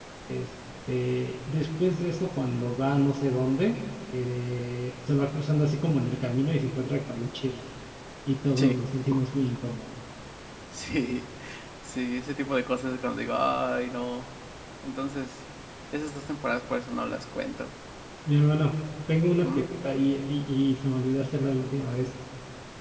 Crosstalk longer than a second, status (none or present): none